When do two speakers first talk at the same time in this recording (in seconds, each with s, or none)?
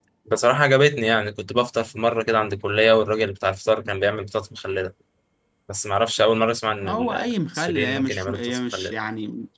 6.8 s